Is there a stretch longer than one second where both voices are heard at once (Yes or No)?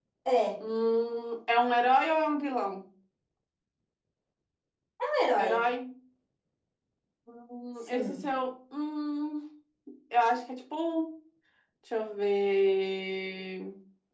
No